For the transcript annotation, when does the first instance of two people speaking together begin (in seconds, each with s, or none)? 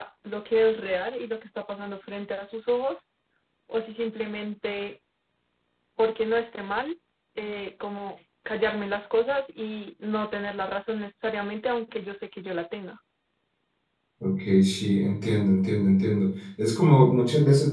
none